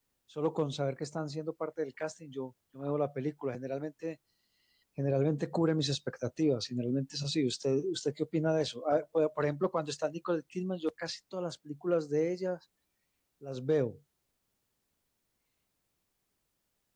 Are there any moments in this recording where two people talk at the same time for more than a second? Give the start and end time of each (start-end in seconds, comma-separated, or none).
none